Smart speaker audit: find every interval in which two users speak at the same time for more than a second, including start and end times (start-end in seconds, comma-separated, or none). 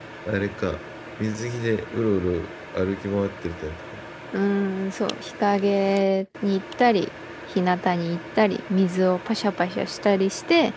none